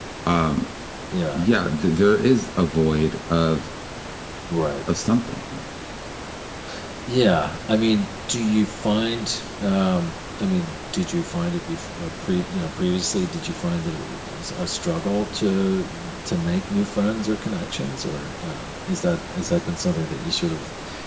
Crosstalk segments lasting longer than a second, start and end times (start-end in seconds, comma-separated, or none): none